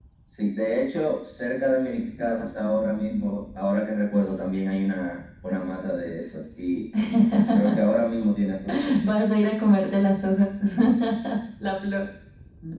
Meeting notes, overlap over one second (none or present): none